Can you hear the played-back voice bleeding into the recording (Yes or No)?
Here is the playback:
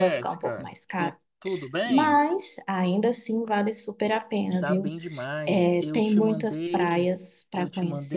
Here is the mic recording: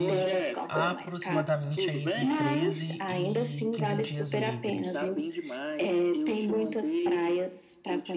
Yes